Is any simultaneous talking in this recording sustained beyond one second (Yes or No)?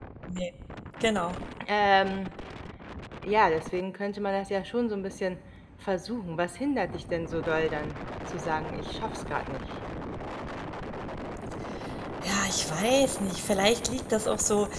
No